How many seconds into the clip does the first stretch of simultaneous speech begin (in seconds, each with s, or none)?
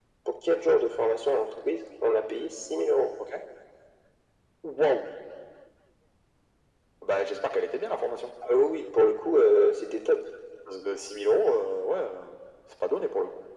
none